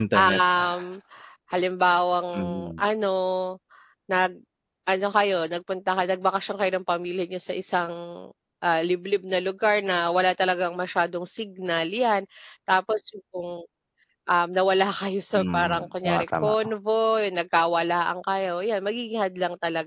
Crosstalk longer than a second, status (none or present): present